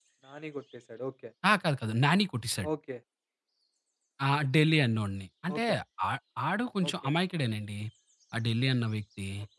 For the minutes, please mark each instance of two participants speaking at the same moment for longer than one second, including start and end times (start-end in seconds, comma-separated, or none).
none